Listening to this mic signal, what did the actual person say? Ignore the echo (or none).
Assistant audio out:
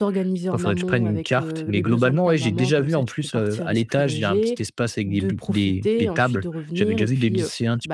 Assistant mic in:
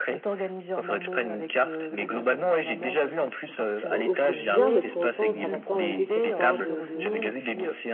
au au quotidien, mais pour autant ça va pas enlever cette part de de